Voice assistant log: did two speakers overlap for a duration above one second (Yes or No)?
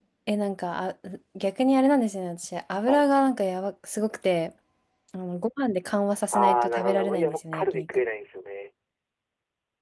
Yes